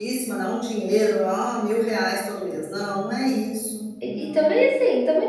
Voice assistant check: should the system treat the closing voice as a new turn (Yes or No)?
Yes